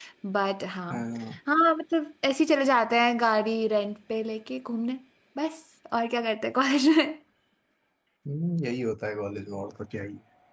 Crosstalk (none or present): none